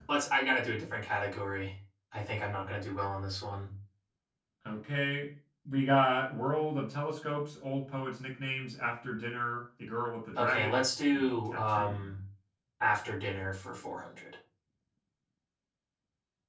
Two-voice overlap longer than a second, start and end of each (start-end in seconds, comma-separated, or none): 10.4-12.1